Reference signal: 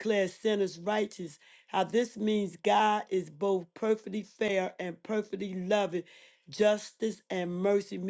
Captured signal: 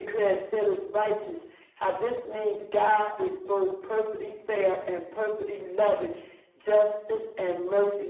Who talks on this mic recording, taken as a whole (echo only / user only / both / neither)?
echo only